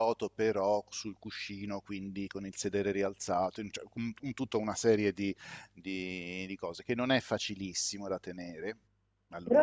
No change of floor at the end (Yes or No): No